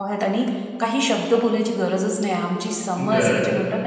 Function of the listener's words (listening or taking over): listening